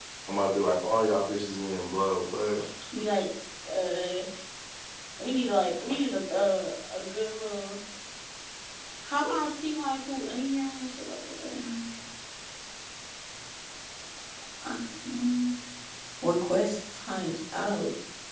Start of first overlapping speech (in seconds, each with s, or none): none